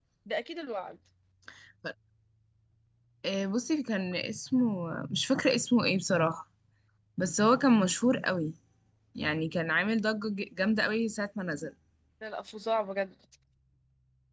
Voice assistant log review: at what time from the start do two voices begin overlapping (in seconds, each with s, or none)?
none